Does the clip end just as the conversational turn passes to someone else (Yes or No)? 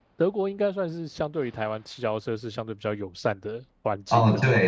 Yes